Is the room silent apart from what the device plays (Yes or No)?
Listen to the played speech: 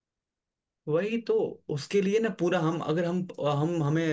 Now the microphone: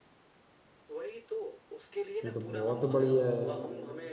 No